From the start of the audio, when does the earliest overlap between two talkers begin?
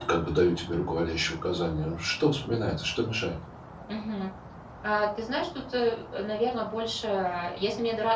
none

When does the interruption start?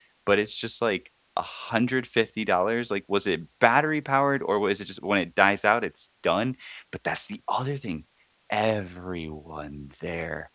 none

